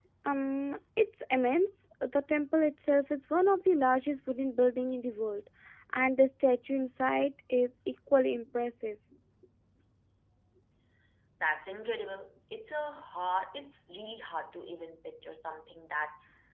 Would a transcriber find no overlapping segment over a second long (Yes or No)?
Yes